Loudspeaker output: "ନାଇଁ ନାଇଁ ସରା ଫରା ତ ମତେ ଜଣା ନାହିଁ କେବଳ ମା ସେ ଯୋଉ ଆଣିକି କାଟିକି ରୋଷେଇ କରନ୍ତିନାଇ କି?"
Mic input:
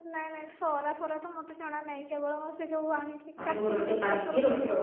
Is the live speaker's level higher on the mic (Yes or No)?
Yes